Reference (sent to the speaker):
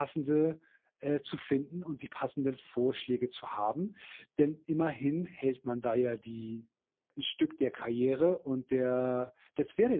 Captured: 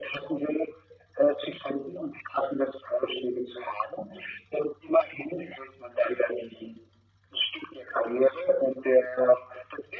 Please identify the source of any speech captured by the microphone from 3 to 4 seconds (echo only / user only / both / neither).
echo only